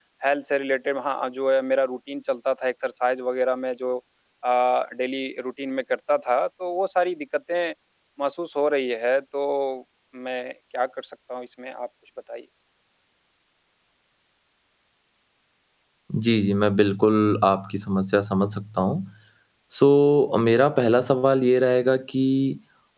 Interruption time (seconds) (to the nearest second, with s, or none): none